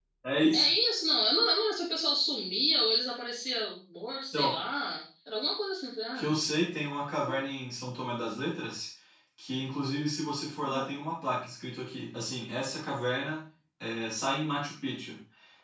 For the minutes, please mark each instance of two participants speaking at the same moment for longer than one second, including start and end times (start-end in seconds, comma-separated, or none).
none